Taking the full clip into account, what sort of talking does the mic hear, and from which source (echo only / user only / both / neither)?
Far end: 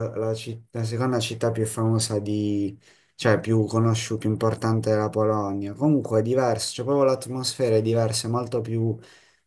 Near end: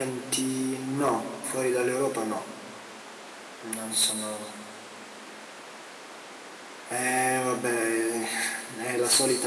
user only